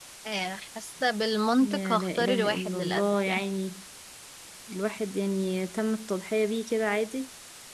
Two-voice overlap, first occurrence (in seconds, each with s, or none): 1.6 s